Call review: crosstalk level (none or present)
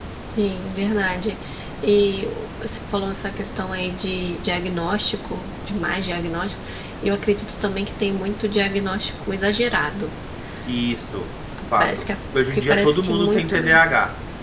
present